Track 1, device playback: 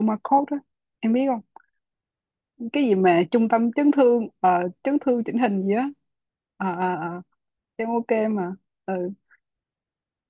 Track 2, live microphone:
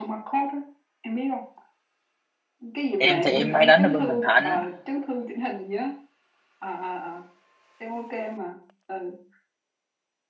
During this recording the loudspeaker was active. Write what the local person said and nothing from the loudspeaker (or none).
em thì em hay đánh ở bên Bình Thạnh